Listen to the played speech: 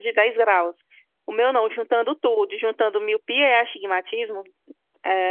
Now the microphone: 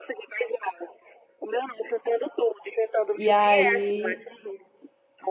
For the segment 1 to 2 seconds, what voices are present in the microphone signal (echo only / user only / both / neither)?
echo only